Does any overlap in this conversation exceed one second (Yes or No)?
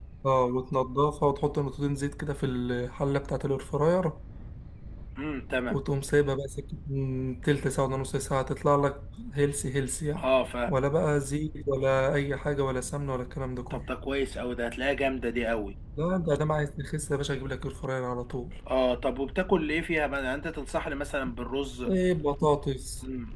No